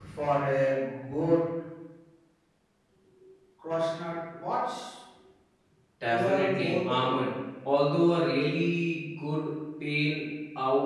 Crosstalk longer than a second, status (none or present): present